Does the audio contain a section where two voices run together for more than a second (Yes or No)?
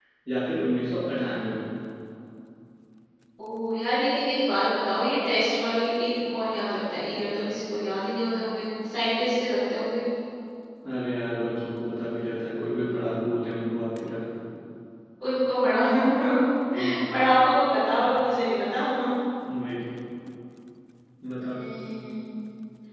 No